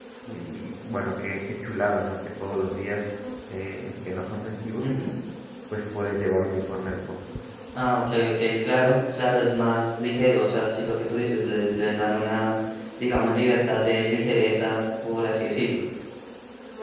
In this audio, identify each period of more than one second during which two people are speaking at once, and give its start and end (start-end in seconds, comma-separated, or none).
none